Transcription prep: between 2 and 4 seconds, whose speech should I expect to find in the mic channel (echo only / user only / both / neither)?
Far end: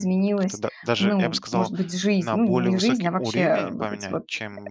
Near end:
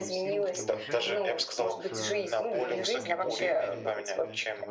both